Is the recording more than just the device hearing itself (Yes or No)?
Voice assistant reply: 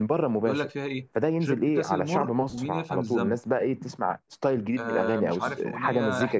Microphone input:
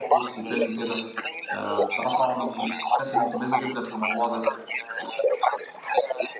Yes